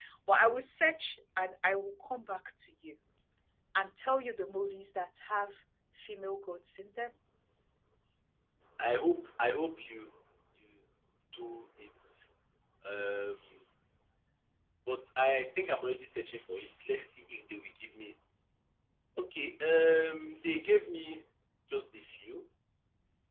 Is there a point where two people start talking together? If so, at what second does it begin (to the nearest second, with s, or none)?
none